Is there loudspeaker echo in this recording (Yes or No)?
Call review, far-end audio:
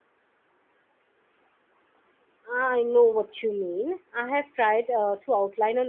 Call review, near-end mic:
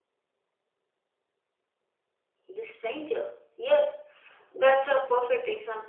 No